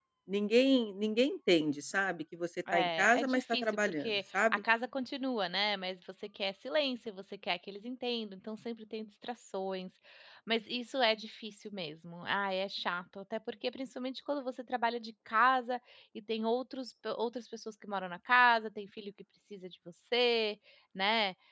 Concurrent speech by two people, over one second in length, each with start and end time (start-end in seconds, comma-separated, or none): 2.7-4.6